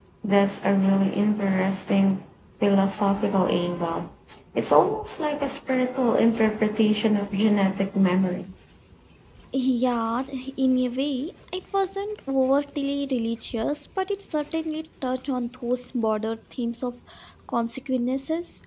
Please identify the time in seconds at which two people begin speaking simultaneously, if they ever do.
none

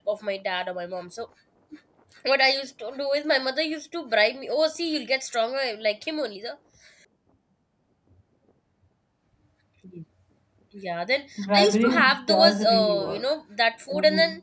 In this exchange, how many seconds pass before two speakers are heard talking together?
11.4 s

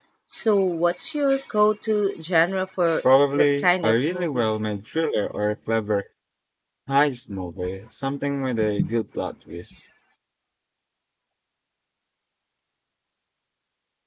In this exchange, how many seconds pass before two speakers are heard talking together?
3.0 s

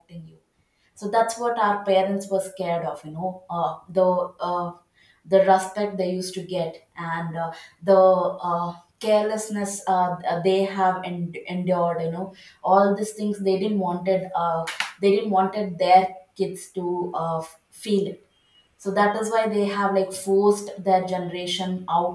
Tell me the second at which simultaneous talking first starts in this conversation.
none

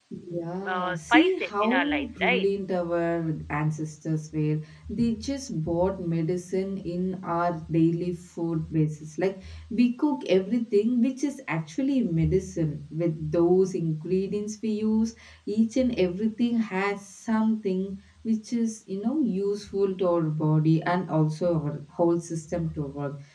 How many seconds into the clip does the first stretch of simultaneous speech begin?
0.6 s

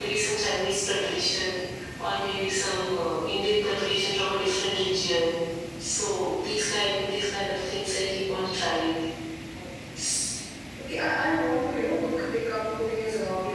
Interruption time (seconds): none

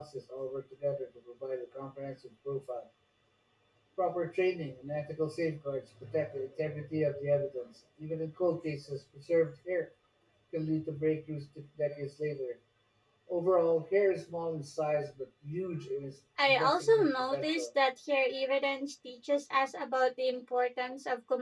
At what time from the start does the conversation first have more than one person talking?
16.4 s

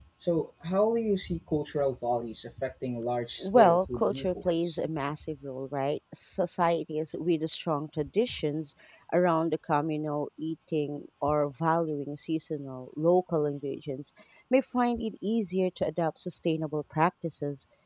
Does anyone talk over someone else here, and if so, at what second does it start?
3.4 s

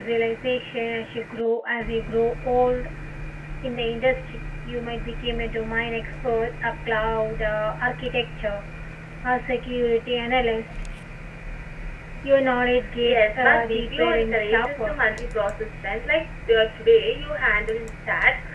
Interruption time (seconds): 13.0 s

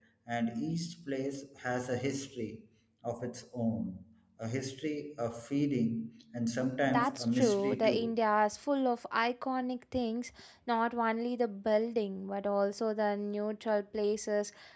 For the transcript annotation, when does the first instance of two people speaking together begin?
6.9 s

